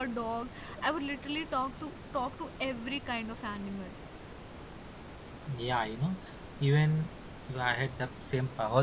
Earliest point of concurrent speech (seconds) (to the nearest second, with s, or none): none